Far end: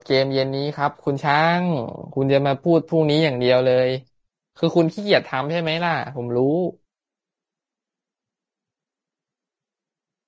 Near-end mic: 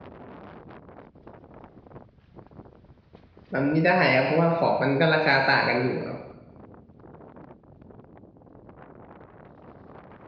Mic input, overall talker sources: user only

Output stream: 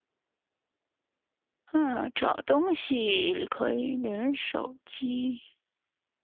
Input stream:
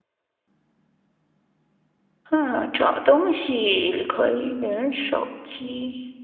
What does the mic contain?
echo only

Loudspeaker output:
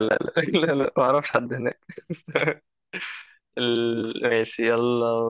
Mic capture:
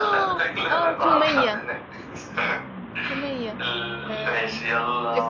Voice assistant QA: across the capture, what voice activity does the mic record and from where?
both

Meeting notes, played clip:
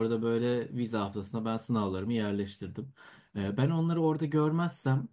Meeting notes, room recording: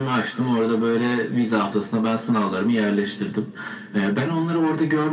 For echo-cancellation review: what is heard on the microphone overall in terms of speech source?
echo only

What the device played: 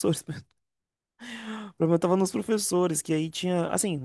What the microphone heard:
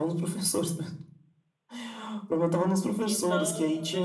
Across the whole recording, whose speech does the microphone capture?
both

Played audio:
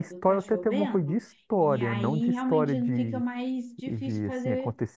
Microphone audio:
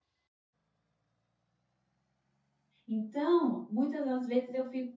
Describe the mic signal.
user only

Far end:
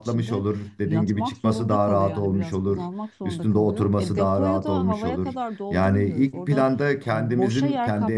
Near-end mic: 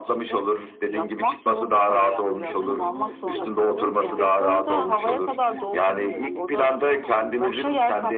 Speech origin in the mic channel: both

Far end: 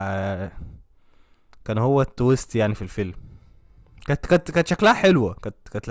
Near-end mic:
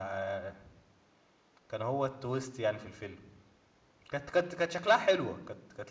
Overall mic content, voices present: echo only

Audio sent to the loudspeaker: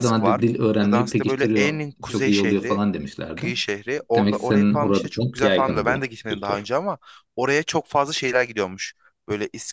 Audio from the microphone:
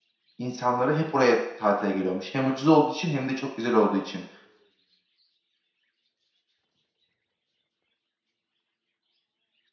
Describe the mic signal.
user only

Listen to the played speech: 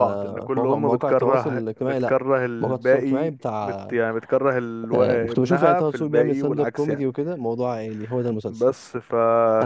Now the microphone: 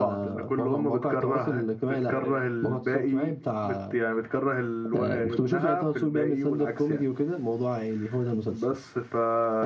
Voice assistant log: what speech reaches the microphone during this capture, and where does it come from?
both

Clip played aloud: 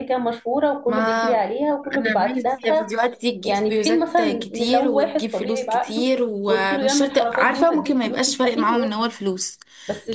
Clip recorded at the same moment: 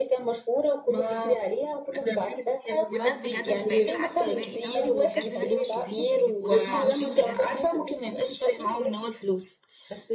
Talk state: both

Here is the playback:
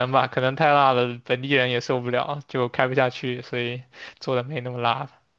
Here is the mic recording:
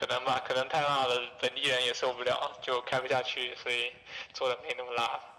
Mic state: echo only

